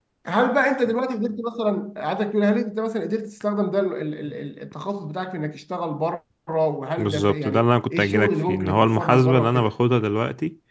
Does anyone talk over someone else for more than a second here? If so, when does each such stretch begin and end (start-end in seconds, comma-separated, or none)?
7.0-9.7